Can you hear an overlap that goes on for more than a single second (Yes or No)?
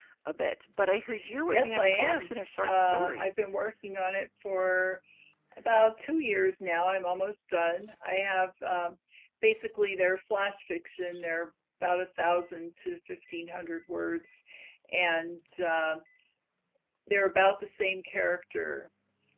Yes